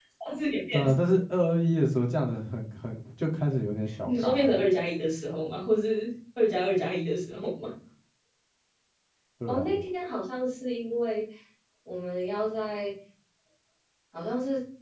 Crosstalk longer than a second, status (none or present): none